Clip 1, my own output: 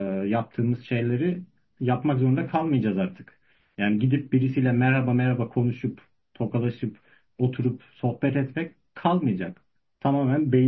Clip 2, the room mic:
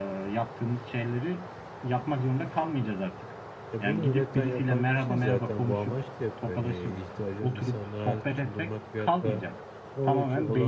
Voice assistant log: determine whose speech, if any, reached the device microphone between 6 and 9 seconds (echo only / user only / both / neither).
both